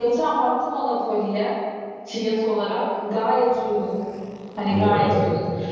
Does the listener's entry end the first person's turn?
No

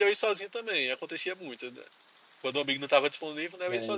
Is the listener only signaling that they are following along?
No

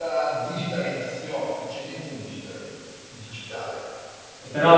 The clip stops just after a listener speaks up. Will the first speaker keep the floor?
No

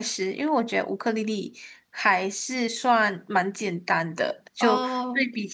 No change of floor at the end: Yes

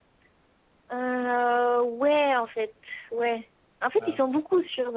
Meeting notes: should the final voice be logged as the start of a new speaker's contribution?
No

